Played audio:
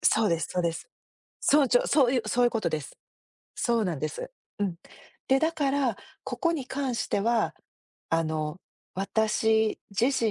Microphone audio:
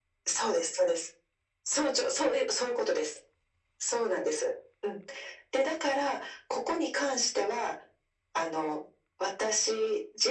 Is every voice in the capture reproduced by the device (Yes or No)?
Yes